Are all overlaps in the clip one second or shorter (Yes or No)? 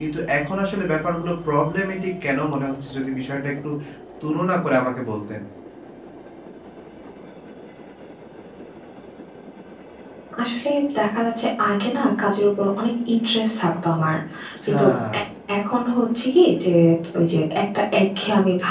Yes